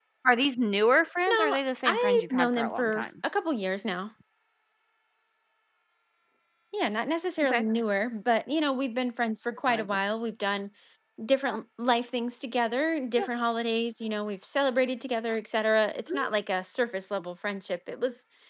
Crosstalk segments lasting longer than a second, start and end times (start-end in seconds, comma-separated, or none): 1.3-3.1